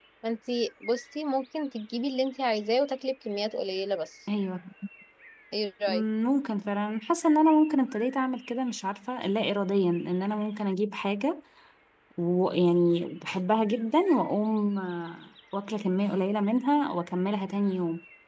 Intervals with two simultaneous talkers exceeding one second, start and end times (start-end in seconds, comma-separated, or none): none